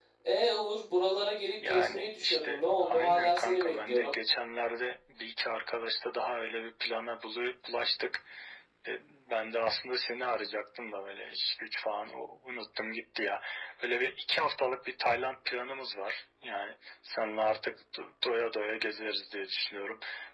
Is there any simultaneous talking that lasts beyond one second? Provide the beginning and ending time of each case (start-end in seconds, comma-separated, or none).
1.6-4.2